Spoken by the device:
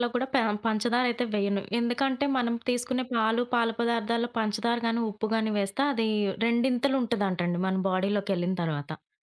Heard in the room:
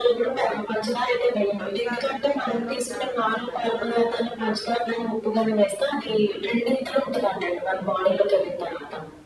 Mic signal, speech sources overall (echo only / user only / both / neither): both